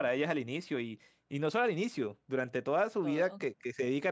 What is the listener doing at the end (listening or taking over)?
listening